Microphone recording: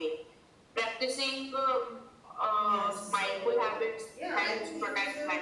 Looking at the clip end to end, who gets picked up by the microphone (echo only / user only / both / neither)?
both